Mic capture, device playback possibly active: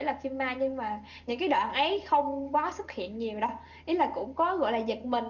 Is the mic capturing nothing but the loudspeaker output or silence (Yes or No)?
Yes